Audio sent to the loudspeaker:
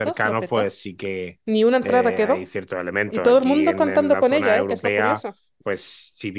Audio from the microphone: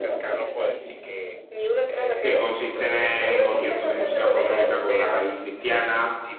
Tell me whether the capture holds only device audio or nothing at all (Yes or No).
No